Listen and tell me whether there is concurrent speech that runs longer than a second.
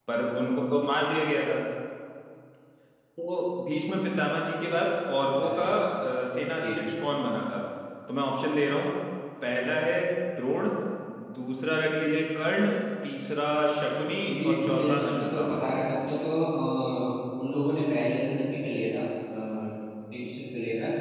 Yes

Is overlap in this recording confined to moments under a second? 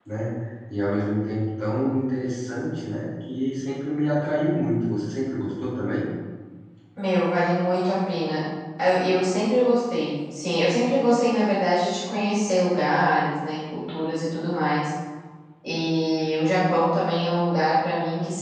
Yes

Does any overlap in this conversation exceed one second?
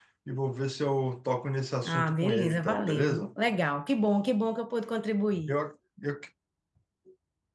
Yes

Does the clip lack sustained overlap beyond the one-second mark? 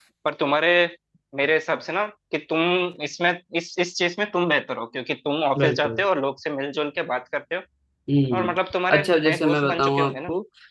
No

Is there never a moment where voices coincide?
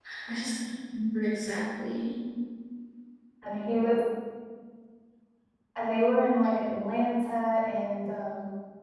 Yes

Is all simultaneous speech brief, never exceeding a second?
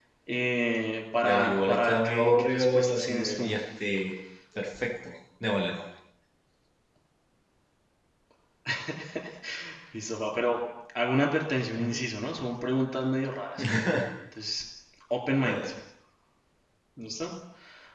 No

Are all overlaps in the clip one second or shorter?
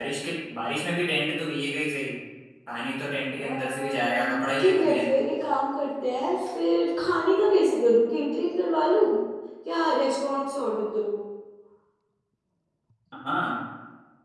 No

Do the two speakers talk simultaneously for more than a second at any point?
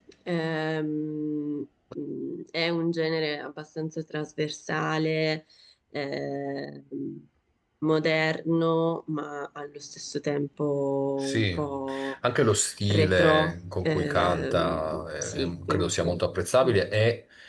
Yes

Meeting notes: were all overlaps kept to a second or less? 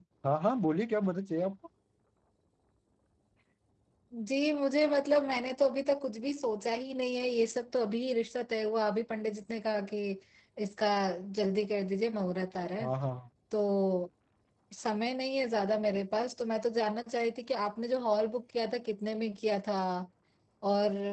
Yes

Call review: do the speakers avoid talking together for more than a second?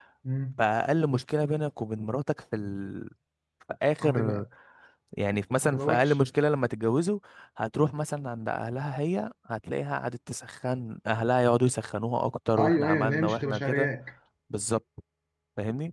No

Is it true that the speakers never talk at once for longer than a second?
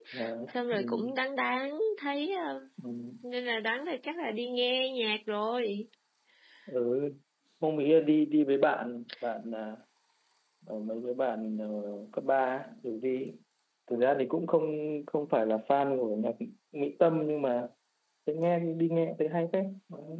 Yes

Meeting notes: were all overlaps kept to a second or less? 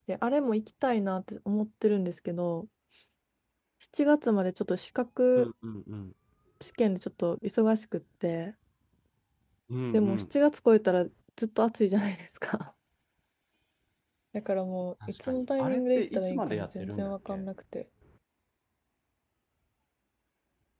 No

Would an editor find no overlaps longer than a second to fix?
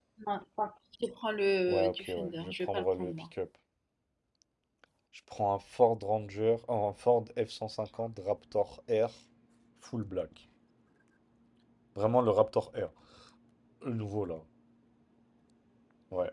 No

